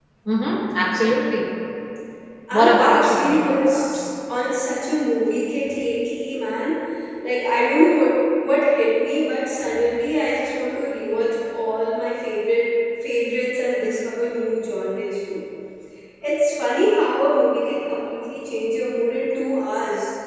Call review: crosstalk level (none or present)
present